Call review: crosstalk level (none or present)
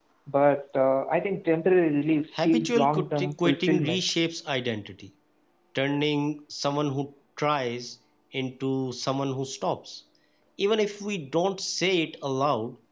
present